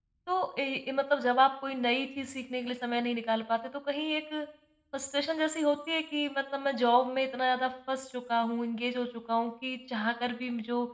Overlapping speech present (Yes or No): No